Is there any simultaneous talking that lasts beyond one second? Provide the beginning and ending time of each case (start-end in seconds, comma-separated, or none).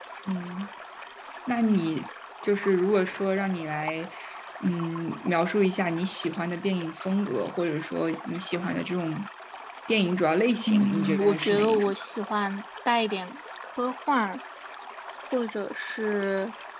10.7-11.9